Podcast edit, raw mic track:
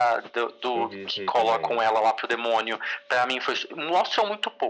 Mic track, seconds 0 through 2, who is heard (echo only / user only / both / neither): both